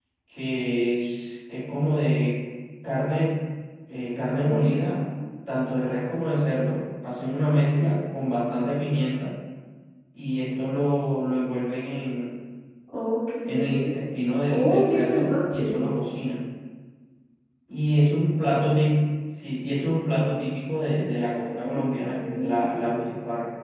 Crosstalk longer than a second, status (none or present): present